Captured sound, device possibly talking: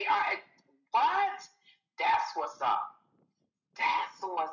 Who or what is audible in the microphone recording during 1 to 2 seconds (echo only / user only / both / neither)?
echo only